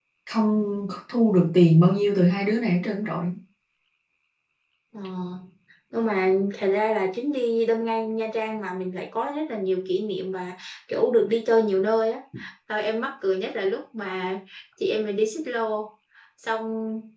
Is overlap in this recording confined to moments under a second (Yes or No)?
Yes